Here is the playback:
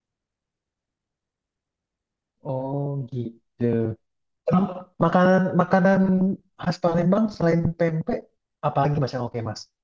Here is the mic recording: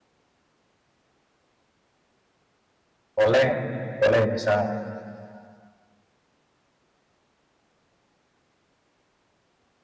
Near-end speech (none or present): present